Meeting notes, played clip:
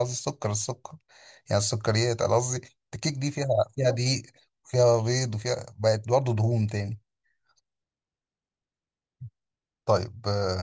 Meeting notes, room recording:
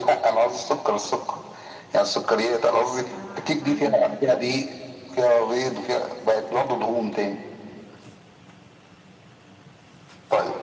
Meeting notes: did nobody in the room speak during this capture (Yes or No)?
No